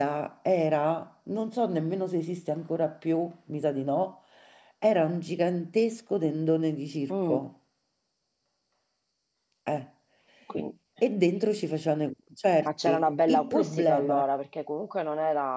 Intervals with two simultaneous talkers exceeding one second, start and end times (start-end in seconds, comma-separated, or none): 12.6-14.2